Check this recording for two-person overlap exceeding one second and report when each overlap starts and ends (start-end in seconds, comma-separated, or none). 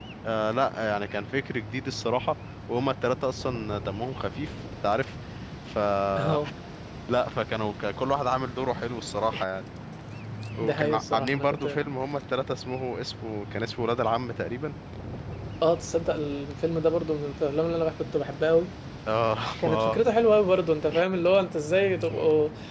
10.6-11.8